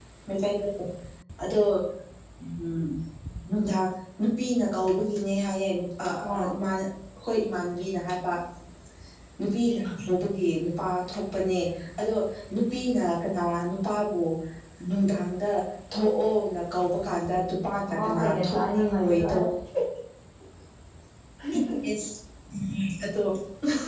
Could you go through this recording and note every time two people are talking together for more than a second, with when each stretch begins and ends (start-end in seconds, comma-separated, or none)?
17.9-19.5